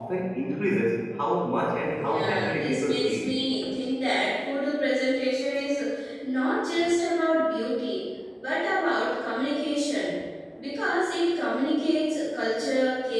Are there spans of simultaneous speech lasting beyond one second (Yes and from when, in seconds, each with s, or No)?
Yes, from 1.9 s